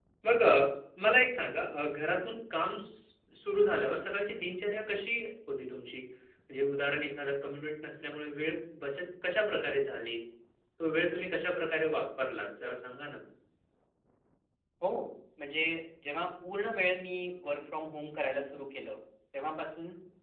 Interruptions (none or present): none